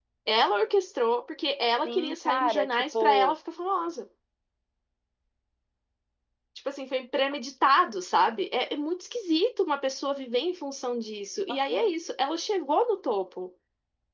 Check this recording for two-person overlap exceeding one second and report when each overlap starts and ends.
1.8-3.3

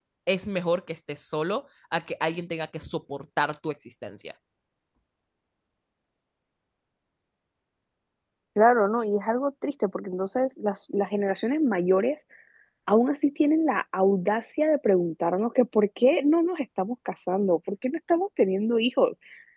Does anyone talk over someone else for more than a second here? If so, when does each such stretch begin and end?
none

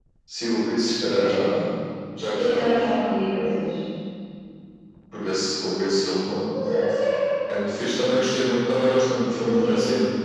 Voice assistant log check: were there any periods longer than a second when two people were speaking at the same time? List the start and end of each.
none

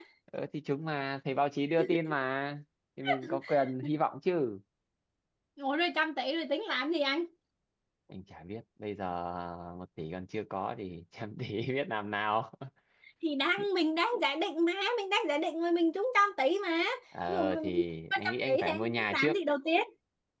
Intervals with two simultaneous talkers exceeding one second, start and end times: 18.1-19.3

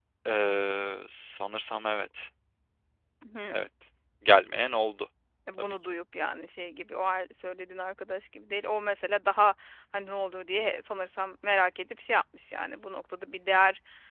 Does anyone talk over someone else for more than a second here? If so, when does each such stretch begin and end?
none

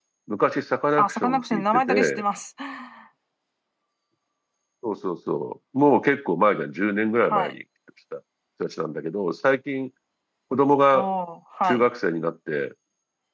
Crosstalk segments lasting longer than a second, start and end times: 1.0-2.2

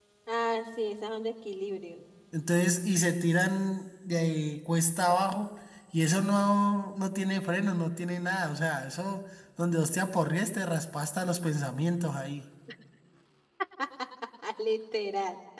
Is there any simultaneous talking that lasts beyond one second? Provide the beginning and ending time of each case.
none

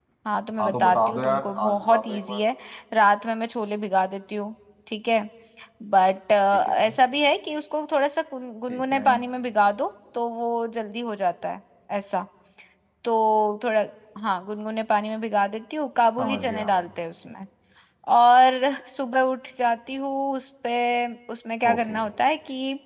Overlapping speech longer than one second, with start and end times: 0.6-2.4

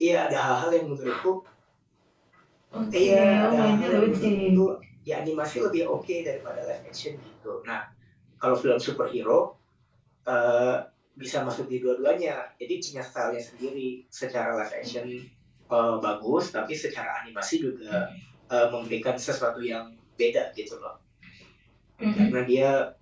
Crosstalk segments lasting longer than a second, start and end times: 3.0-4.6

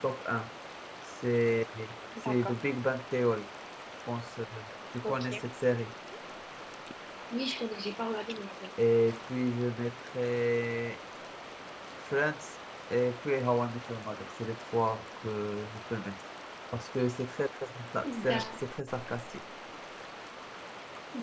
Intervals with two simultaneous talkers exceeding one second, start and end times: none

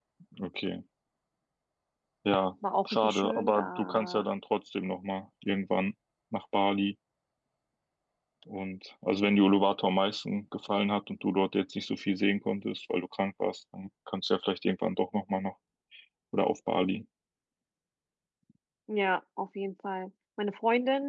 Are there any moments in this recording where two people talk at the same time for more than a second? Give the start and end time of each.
2.8-4.3

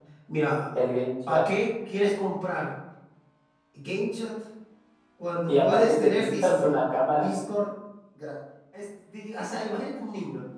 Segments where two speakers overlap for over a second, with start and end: 5.5-6.7

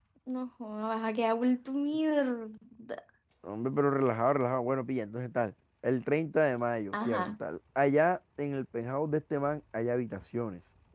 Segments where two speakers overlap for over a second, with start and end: none

